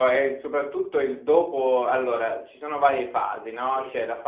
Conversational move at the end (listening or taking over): listening